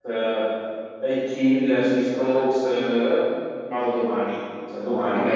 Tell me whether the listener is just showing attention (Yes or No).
No